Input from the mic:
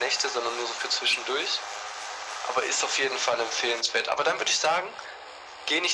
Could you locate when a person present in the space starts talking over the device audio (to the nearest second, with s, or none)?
none